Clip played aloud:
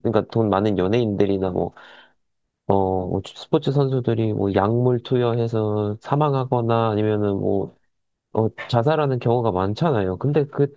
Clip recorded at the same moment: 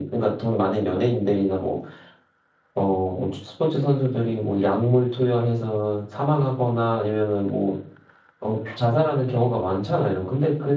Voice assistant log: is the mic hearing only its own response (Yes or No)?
Yes